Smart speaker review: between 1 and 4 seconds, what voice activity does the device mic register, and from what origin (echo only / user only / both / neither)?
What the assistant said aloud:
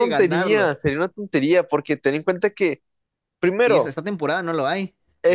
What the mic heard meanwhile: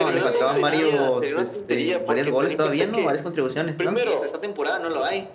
both